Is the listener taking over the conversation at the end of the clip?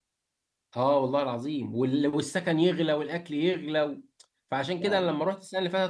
No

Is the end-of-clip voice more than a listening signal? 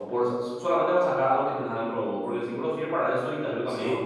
No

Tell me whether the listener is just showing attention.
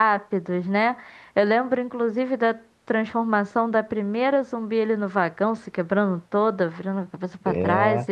No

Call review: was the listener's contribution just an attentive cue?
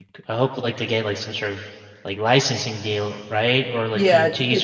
No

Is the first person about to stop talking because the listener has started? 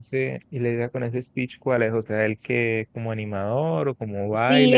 Yes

